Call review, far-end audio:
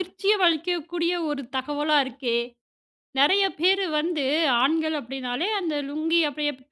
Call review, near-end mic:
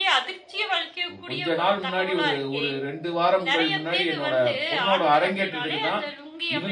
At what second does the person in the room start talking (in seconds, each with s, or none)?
1.1 s